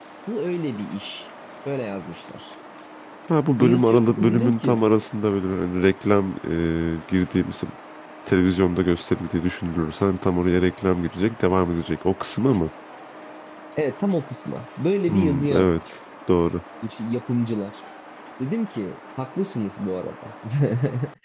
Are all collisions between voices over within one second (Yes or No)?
No